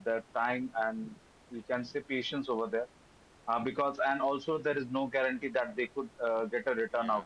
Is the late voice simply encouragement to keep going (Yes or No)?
No